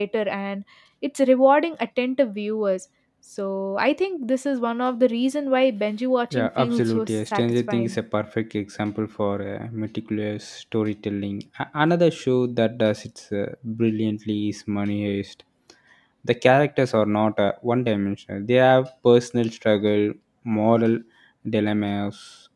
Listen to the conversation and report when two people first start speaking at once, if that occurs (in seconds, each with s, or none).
6.3 s